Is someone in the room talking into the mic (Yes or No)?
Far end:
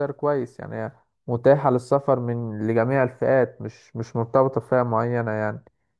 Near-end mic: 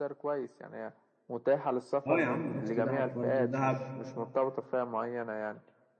Yes